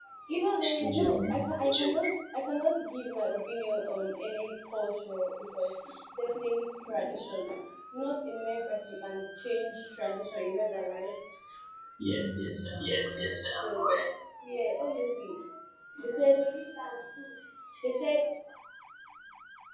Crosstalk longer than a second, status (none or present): none